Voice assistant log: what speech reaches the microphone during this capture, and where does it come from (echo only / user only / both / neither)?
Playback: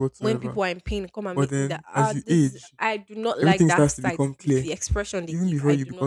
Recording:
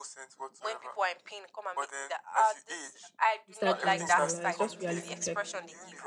both